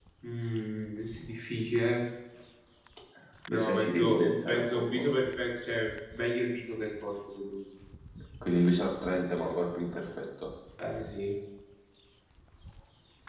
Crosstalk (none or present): present